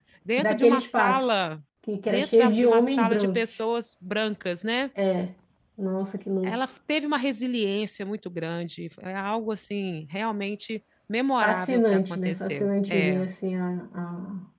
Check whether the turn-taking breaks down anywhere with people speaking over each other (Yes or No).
Yes